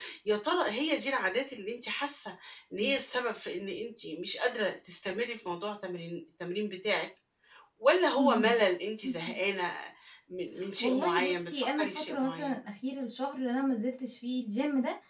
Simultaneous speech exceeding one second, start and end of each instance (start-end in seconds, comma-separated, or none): 10.8-12.5